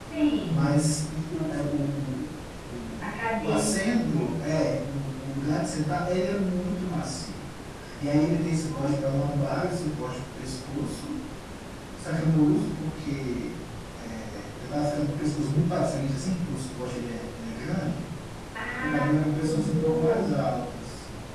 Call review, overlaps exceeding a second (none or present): present